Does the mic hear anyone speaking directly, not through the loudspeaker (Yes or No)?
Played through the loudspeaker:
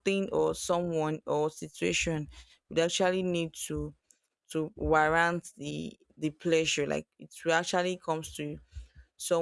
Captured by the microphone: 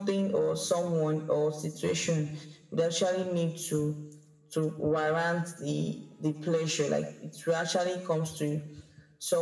No